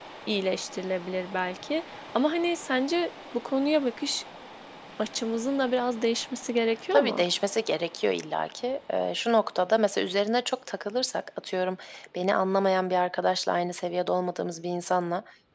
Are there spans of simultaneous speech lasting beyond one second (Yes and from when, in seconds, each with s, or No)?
No